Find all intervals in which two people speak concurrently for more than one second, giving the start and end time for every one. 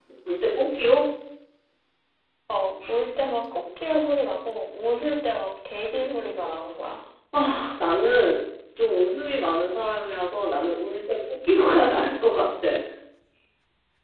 none

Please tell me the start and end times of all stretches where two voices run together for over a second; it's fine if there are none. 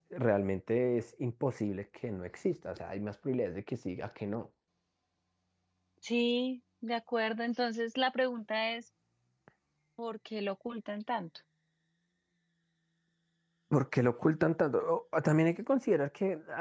none

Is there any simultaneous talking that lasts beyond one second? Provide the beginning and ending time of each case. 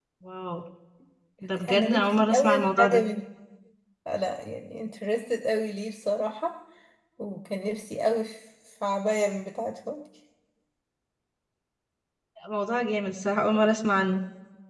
1.7-3.0

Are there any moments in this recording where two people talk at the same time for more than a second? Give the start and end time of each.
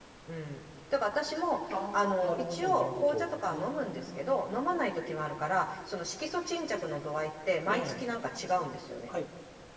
1.9-4.5

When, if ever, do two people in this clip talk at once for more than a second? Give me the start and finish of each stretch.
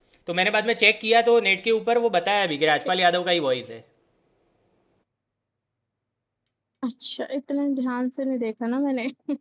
none

